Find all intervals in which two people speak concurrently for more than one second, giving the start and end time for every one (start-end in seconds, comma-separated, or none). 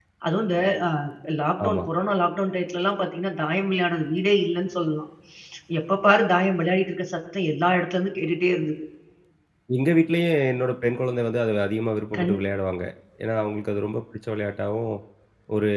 none